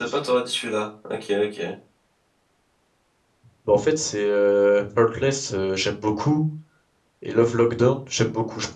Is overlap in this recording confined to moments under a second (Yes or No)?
Yes